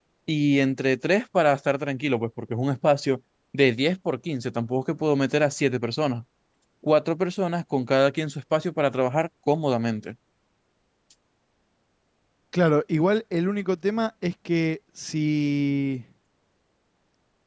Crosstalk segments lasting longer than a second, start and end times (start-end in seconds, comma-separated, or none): none